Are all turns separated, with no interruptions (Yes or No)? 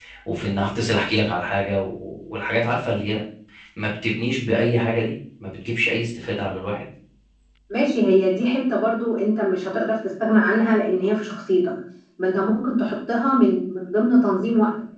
Yes